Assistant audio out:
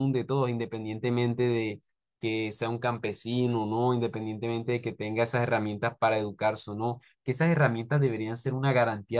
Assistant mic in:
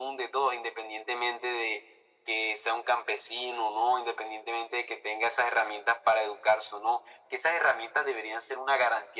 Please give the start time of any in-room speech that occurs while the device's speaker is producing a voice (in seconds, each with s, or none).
none